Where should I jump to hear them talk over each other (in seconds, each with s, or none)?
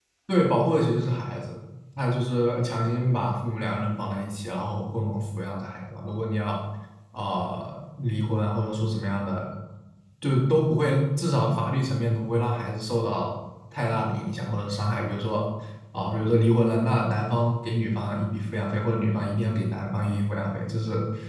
none